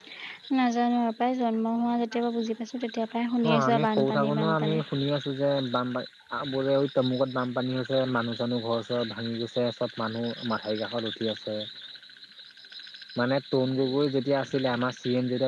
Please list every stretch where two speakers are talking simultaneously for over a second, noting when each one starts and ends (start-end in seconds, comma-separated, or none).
3.5-4.8